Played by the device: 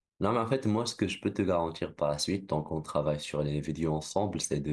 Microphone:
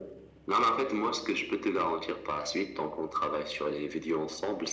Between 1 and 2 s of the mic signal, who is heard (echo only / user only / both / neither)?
echo only